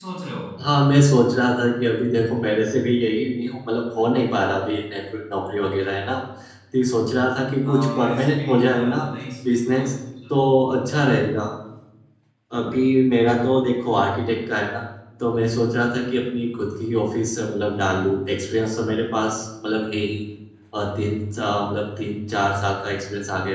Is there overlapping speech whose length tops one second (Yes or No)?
Yes